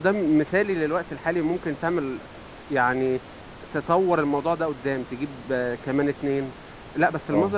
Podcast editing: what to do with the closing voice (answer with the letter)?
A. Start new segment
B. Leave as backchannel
B